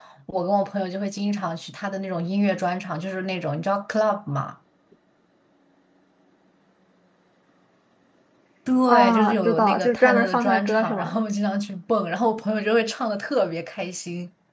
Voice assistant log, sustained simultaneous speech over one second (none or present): present